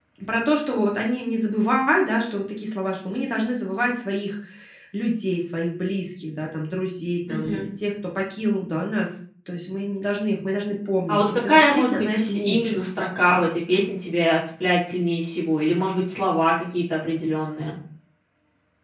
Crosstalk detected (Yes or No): Yes